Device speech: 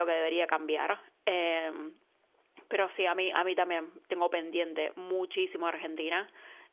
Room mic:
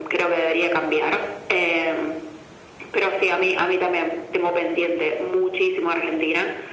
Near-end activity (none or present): none